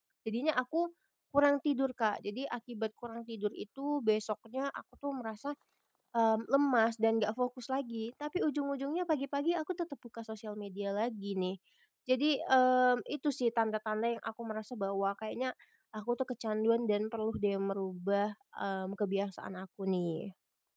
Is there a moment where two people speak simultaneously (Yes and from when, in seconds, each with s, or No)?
No